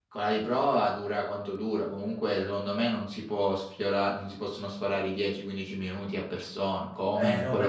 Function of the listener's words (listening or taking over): taking over